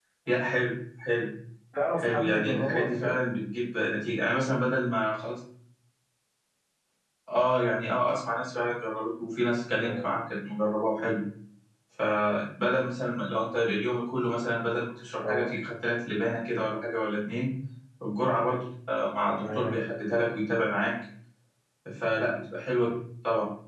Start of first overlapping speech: 2.0 s

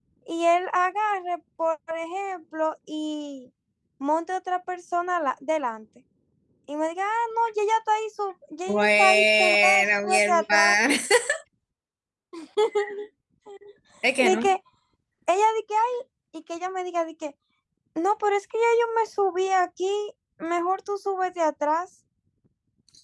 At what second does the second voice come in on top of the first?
8.7 s

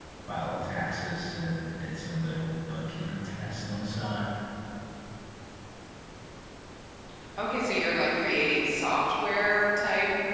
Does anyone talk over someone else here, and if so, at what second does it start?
none

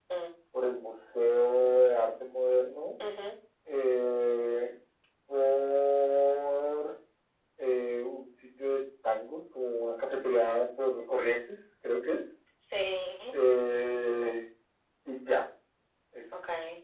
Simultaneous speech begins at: none

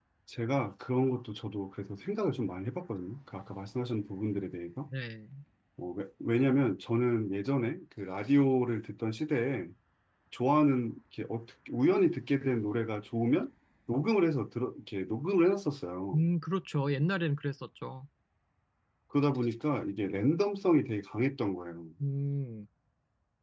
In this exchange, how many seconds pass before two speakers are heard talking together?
none

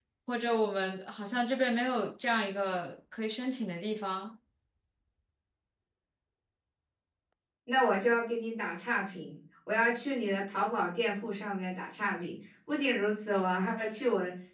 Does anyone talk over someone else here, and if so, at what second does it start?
none

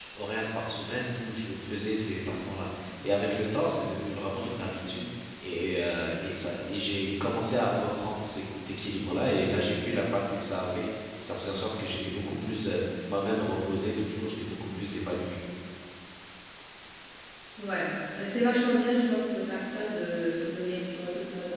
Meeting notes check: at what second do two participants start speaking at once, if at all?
none

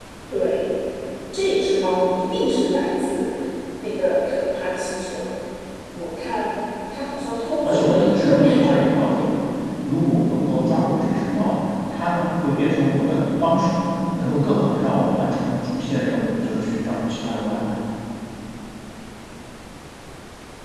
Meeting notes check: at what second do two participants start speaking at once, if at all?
7.6 s

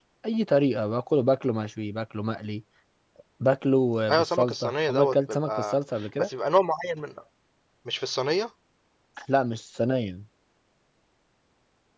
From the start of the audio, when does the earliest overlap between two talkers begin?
4.1 s

